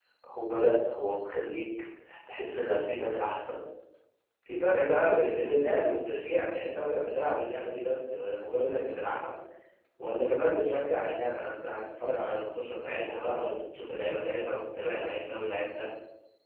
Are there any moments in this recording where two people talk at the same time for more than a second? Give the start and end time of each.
none

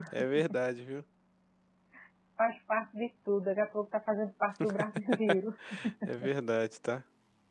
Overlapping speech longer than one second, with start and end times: none

